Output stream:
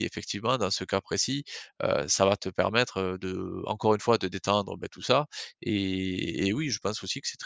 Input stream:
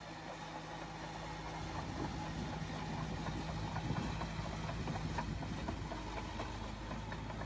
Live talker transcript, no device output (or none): none